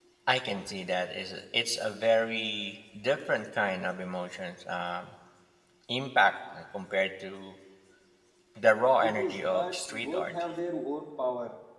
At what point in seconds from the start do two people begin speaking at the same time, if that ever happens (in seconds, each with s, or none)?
9.0 s